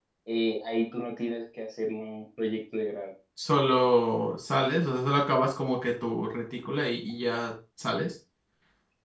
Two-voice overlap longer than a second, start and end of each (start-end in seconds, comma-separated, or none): none